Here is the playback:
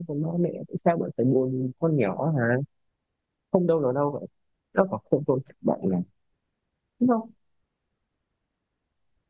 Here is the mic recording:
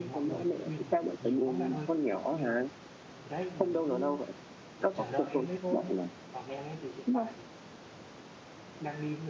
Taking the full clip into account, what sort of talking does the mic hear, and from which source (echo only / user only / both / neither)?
both